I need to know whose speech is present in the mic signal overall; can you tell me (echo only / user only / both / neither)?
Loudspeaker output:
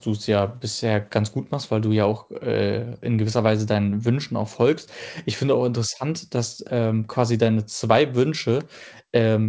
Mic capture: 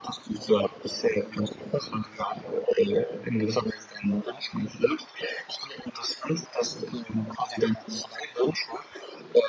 echo only